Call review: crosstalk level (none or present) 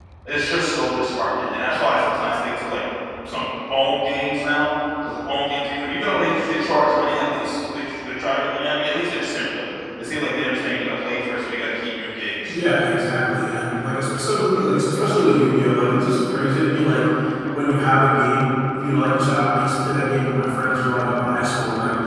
none